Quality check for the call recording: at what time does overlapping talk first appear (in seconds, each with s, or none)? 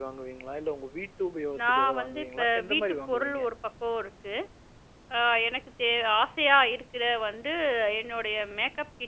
1.6 s